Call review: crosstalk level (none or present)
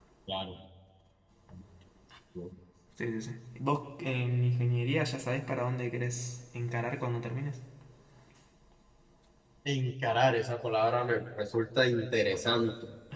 none